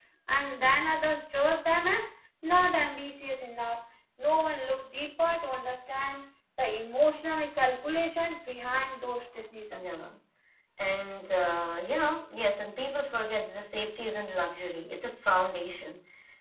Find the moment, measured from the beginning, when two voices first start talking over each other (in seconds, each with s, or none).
none